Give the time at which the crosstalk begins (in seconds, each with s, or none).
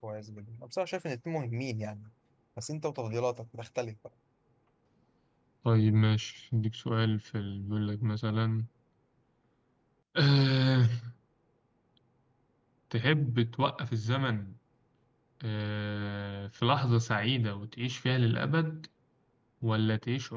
none